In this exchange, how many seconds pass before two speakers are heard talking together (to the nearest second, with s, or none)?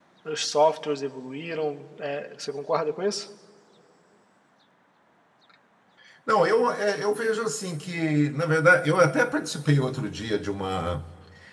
none